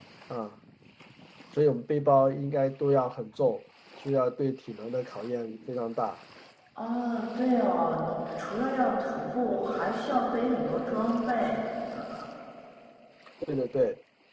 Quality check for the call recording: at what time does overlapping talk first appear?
none

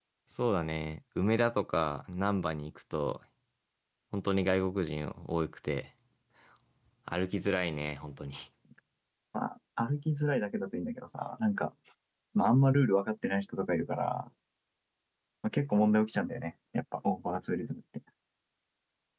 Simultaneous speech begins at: none

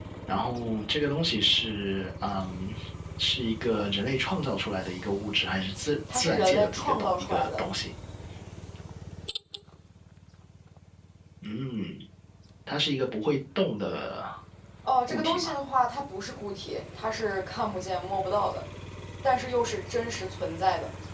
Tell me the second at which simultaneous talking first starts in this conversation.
6.1 s

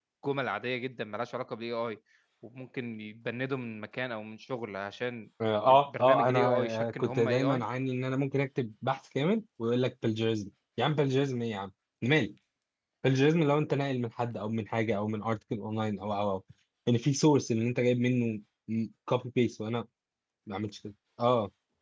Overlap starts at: 5.7 s

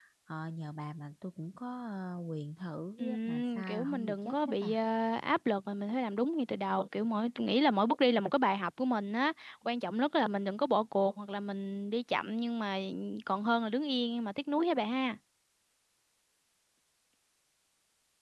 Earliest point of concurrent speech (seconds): 3.0 s

